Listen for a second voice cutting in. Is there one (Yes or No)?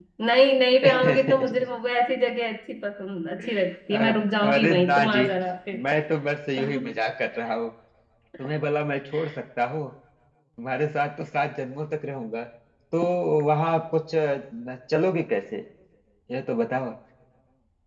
Yes